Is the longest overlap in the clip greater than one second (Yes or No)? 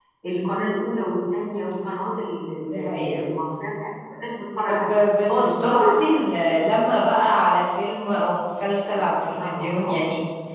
Yes